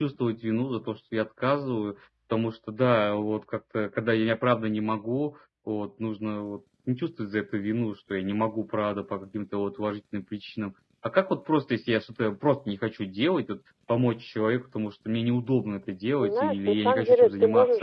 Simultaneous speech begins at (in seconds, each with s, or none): 16.2 s